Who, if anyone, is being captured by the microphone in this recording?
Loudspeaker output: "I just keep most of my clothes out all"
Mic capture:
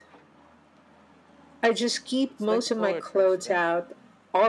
both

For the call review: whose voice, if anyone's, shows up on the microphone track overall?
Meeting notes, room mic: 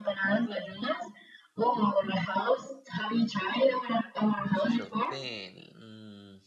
both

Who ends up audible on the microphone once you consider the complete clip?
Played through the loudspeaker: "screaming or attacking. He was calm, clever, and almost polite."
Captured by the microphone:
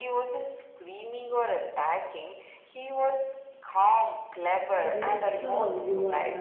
both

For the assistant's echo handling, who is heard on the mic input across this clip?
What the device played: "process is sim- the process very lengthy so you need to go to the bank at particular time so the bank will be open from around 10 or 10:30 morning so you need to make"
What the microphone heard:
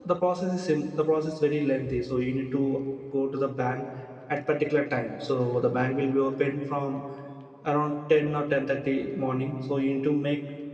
echo only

